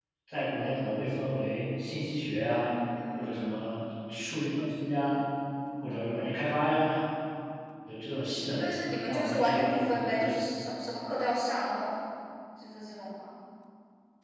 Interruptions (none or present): present